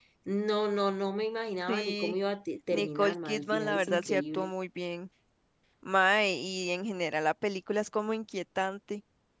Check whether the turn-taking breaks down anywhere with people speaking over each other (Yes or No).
Yes